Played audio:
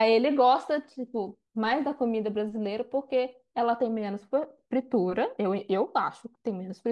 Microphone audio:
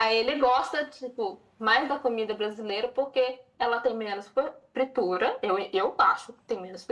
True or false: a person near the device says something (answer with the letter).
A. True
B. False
B